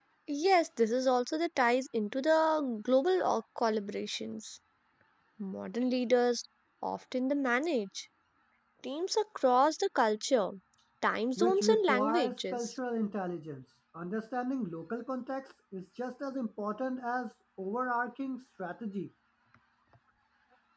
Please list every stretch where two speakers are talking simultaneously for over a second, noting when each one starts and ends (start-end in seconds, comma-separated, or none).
11.4-12.7